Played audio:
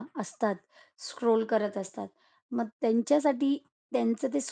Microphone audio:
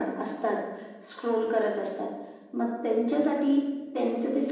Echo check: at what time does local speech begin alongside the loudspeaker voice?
none

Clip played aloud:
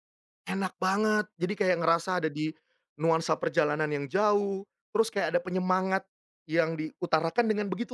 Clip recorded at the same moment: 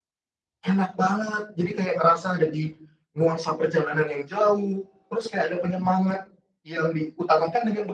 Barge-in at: none

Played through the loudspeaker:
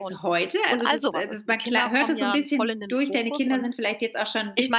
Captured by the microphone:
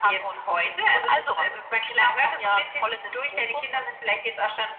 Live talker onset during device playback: none

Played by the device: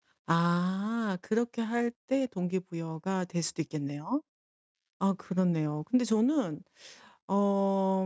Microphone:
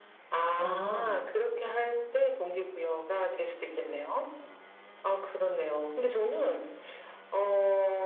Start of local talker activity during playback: 1 s

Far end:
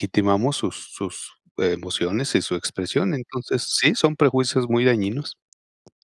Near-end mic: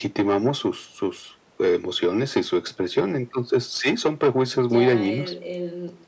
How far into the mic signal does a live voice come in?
5 s

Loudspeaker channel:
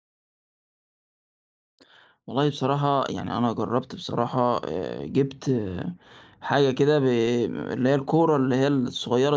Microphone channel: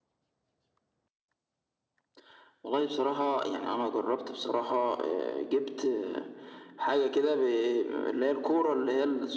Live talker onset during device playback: none

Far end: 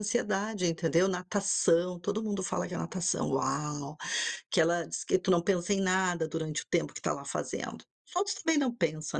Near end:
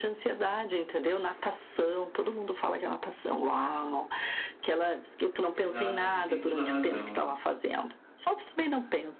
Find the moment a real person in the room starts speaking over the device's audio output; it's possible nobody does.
6 s

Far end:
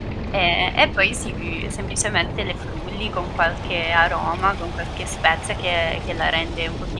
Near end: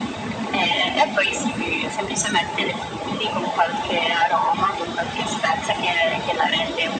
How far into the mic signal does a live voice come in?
none

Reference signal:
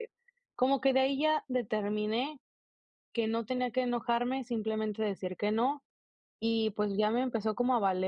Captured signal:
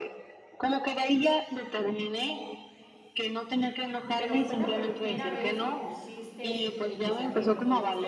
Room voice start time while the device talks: 4 s

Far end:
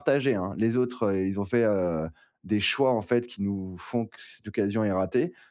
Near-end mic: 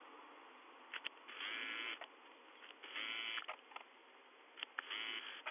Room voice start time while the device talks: none

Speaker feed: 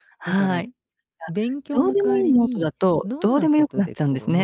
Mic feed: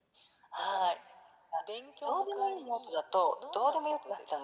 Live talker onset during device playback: none

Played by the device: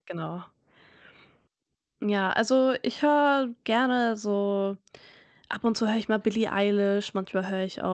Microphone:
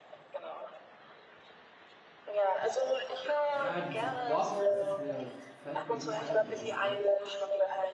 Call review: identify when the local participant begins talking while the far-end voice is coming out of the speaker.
4 s

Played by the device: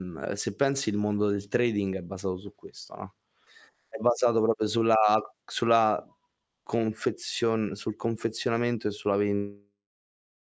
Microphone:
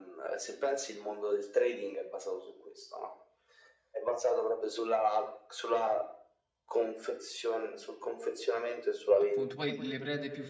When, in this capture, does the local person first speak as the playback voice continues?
9 s

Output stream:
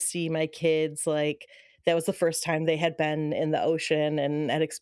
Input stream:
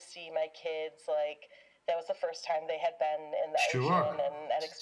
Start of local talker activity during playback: 4 s

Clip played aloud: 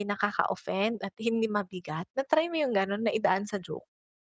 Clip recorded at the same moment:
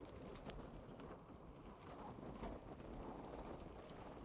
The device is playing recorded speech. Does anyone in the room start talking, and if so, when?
none

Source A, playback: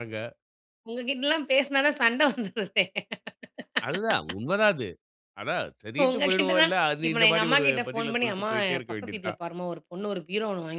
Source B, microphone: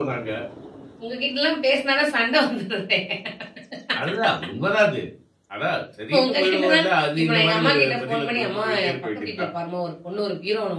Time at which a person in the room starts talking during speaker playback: none

